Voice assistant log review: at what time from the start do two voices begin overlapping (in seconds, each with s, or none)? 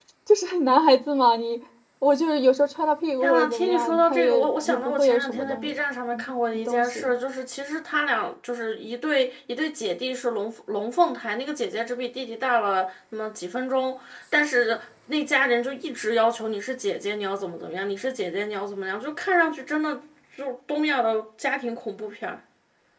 3.2 s